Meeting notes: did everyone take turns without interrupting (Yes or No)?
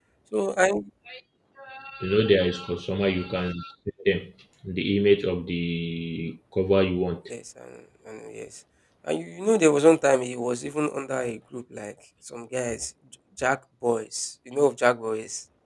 Yes